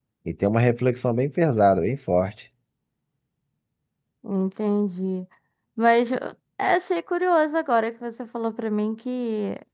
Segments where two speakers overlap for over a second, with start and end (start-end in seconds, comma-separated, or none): none